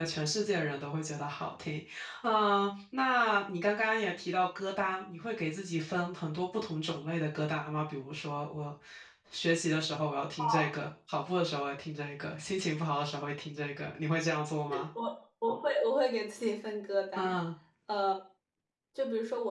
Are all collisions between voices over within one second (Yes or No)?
Yes